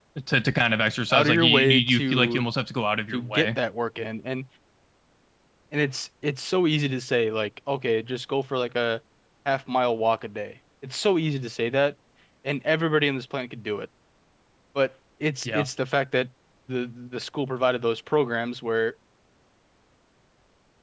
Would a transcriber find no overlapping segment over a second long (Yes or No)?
No